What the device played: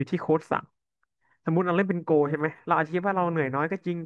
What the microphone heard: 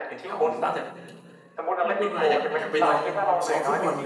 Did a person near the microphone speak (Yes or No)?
Yes